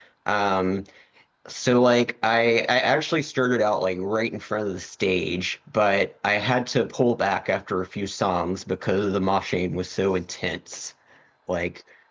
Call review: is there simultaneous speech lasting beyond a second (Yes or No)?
No